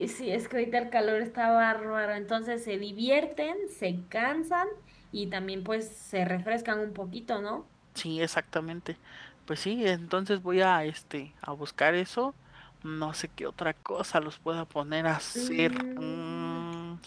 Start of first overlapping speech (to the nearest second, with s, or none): 15 s